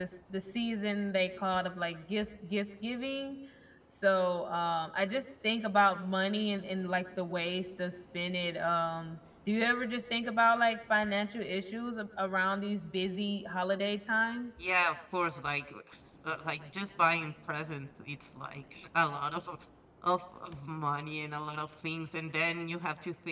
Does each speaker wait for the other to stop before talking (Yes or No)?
Yes